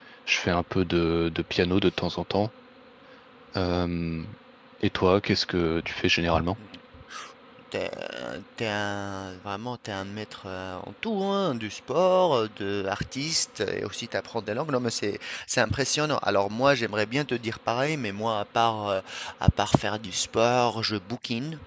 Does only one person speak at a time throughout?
Yes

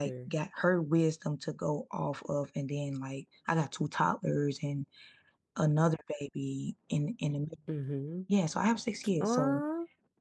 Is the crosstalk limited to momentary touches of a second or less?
Yes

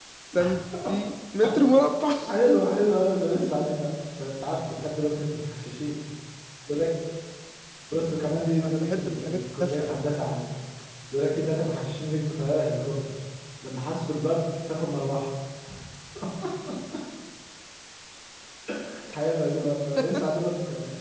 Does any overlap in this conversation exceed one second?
Yes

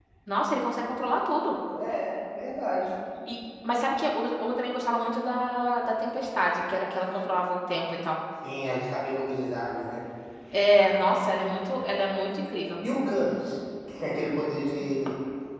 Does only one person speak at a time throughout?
Yes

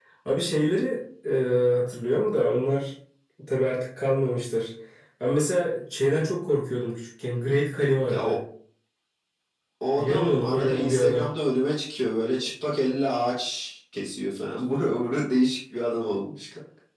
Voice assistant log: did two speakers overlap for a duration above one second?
Yes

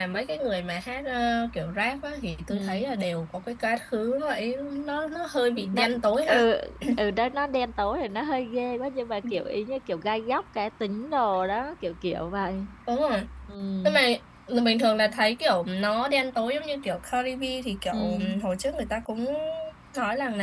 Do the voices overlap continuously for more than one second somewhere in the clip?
No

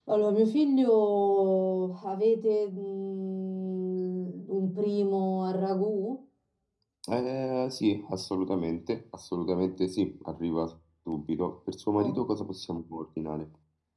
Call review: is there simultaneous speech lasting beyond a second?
No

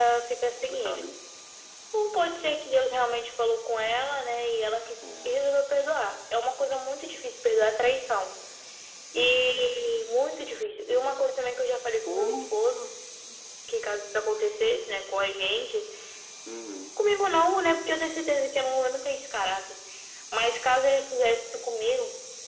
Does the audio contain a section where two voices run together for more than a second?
No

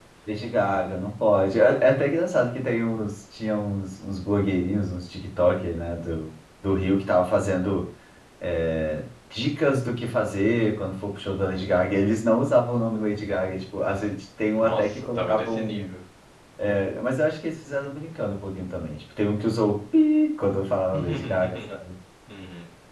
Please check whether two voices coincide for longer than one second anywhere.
Yes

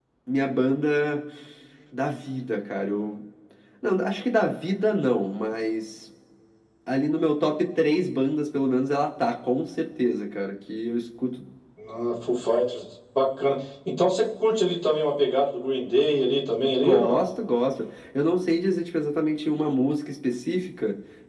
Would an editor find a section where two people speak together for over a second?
No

